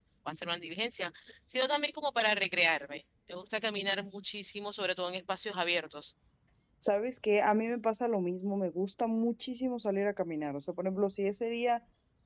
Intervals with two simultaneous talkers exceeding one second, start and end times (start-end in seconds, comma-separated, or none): none